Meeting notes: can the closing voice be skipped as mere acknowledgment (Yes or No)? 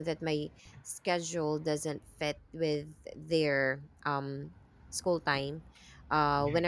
Yes